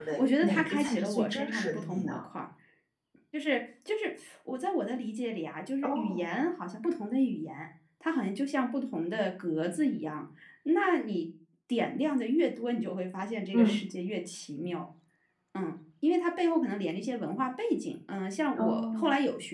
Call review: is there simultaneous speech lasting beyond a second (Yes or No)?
Yes